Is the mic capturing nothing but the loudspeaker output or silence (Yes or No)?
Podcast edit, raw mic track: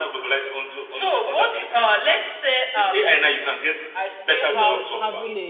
No